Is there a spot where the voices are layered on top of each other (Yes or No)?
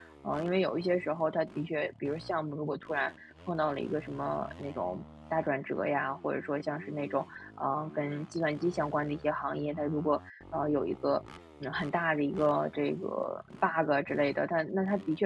No